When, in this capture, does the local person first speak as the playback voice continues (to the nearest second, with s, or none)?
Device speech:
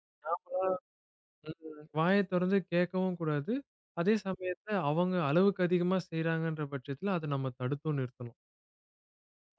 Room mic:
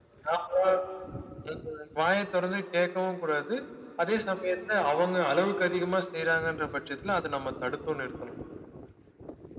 none